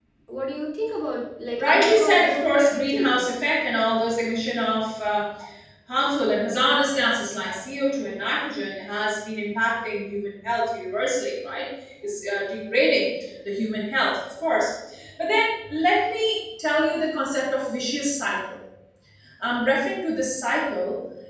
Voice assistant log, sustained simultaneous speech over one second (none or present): present